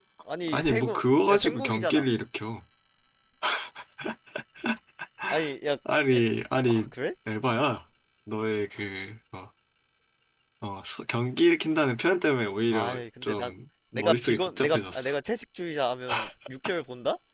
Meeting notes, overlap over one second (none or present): present